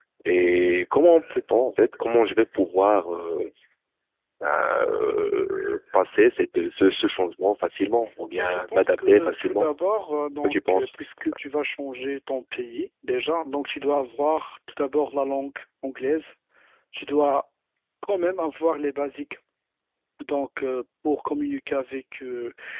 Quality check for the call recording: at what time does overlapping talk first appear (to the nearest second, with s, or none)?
8 s